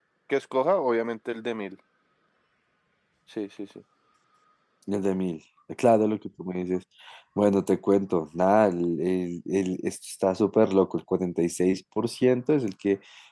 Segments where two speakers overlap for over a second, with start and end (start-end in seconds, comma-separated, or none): none